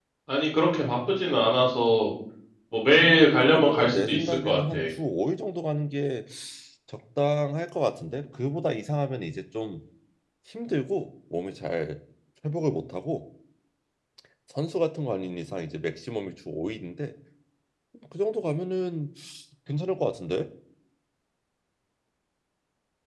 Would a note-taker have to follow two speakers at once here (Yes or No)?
Yes